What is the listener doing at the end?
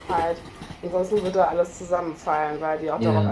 listening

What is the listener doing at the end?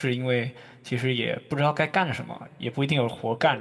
listening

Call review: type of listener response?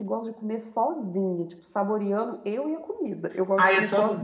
taking over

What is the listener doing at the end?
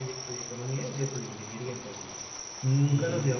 listening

